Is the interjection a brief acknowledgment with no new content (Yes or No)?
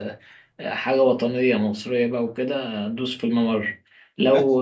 No